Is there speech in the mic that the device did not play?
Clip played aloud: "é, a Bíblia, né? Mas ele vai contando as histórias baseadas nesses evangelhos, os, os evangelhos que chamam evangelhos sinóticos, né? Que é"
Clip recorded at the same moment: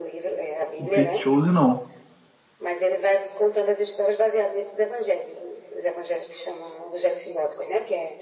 Yes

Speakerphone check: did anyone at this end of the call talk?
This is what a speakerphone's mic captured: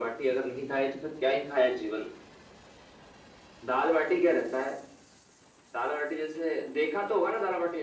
No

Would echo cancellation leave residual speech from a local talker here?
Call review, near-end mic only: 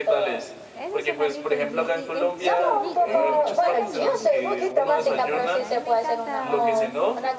Yes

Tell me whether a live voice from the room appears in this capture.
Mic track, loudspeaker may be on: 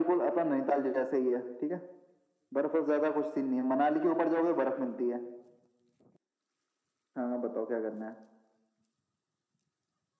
No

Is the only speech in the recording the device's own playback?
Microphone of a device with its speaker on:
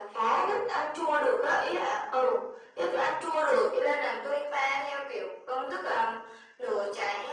Yes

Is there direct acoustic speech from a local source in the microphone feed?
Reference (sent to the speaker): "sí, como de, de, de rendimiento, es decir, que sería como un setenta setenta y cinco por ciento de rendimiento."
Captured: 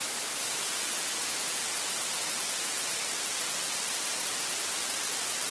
No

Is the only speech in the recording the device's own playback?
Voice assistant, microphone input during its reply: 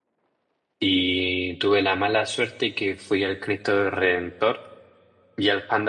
No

